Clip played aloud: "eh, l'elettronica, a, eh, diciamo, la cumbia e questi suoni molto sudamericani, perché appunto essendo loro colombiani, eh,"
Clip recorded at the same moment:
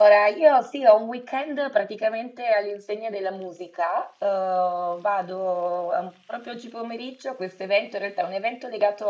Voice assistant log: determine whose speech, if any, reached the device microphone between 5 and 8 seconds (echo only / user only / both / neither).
user only